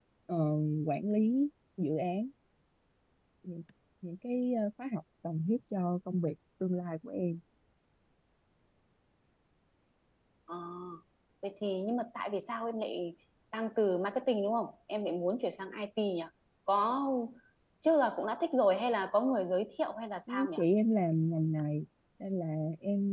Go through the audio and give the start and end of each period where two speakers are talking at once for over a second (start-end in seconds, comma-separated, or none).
none